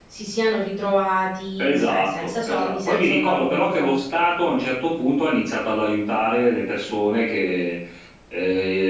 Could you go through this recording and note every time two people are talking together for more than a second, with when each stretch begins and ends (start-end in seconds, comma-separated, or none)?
1.6-4.0